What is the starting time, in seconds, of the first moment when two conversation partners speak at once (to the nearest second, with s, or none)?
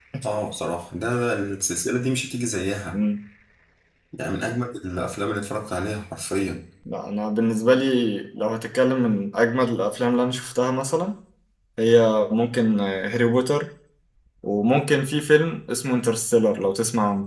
none